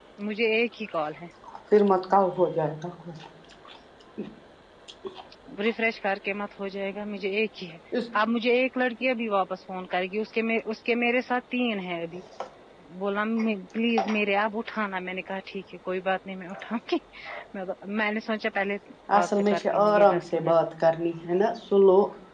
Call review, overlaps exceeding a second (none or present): present